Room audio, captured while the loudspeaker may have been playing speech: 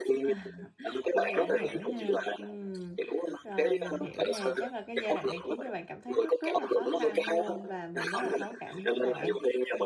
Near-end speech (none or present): present